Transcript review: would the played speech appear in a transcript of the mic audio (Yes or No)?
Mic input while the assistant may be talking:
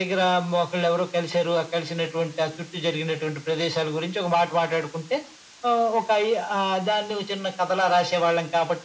Yes